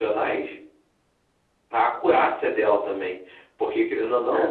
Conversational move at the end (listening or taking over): listening